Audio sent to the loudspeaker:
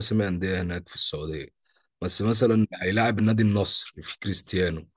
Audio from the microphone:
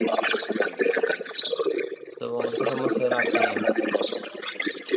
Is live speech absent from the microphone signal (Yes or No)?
No